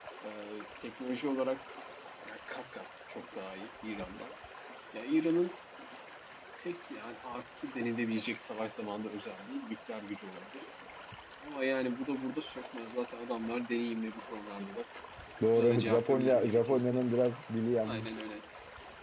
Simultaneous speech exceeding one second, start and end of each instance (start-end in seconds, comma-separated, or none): 15.5-17.1